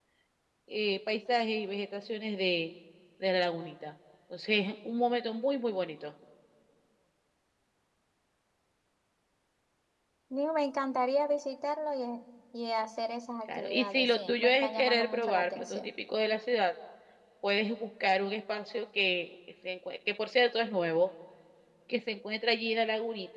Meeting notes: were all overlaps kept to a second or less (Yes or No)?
No